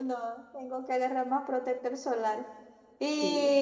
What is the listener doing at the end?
listening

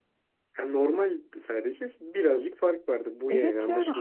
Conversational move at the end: taking over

